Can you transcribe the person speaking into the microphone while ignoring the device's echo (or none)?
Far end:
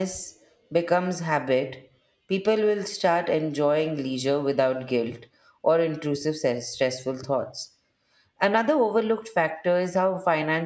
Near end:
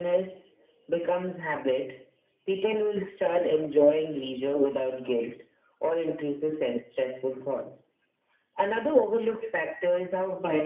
none